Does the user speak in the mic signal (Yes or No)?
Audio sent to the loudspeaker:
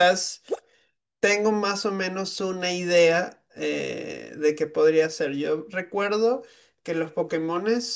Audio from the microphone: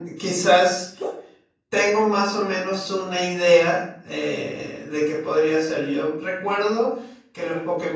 No